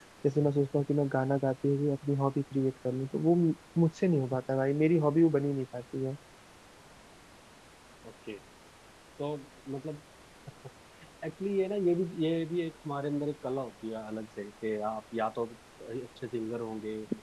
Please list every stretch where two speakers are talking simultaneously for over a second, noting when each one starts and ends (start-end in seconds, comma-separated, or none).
none